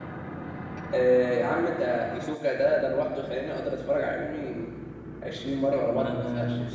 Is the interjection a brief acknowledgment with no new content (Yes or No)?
No